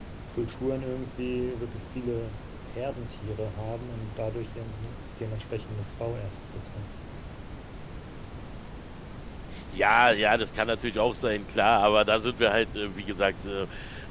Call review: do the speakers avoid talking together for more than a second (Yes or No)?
Yes